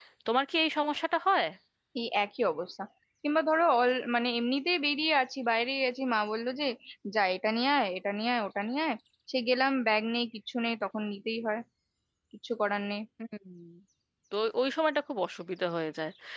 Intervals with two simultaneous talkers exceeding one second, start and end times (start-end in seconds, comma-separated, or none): none